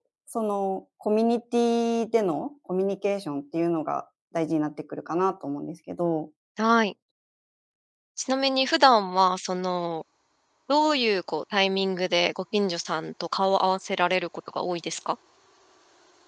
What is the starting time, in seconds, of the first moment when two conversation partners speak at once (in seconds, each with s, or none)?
none